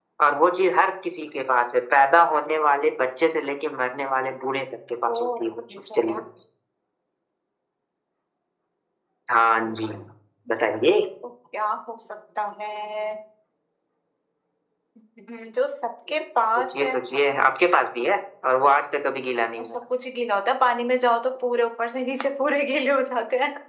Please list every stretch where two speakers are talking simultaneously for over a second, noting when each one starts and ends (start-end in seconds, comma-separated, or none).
none